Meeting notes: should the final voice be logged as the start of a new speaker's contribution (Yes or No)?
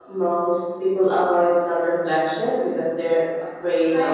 Yes